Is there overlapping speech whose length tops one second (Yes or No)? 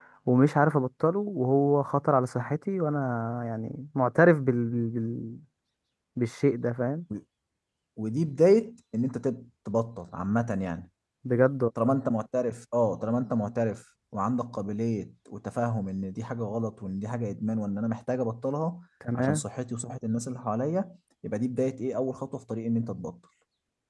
No